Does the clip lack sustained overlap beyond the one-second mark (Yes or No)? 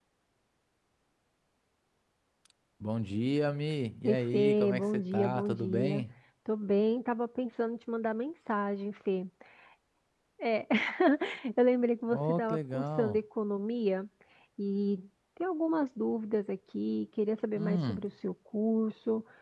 No